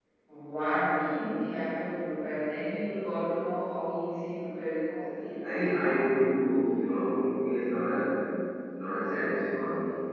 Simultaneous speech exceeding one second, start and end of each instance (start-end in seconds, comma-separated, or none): none